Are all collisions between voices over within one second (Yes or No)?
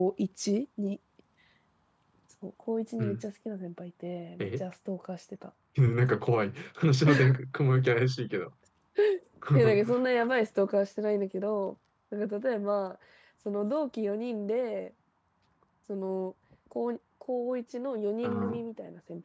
Yes